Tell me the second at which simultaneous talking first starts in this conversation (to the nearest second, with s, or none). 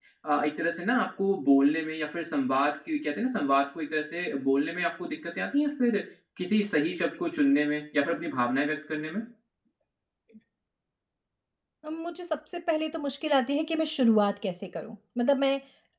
none